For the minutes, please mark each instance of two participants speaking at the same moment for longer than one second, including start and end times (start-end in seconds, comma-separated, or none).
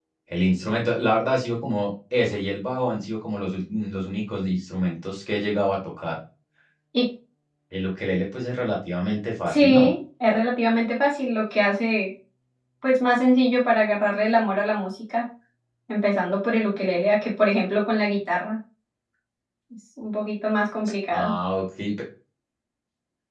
none